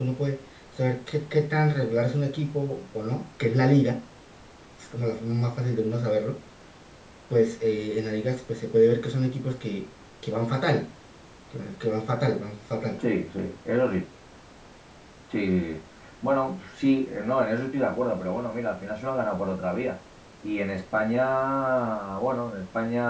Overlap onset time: none

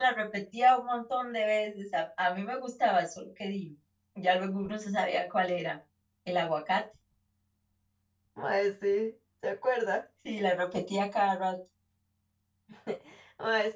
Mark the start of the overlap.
none

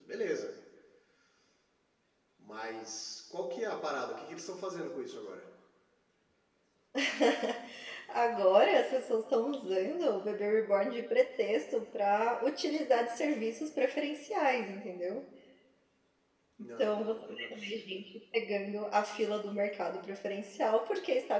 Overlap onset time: 16.6 s

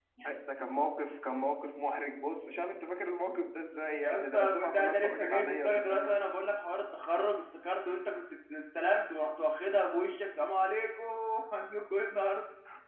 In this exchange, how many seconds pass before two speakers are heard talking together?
4.0 s

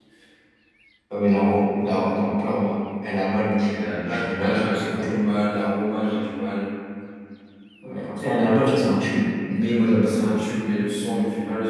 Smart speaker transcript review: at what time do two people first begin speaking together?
3.8 s

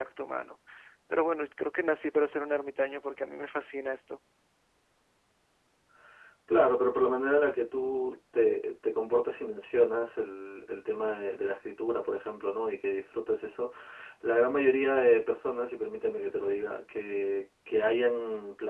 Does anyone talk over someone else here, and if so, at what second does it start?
none

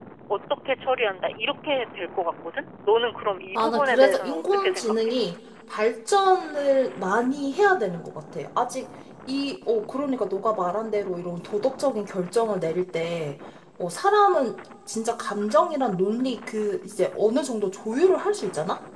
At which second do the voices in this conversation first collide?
3.5 s

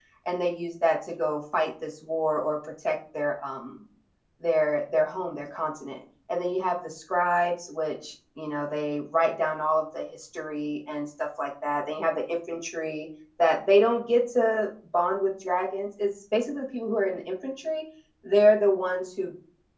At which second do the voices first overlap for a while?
none

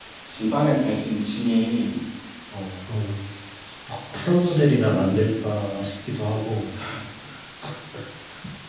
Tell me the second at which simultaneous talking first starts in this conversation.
4.1 s

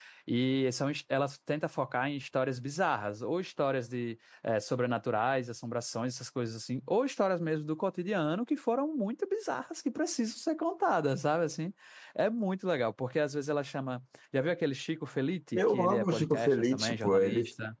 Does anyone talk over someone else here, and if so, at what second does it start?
15.5 s

